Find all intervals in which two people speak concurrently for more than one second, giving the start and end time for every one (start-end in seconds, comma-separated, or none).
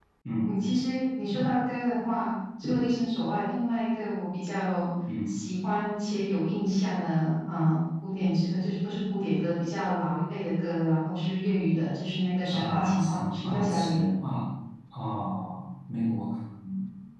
12.5-14.1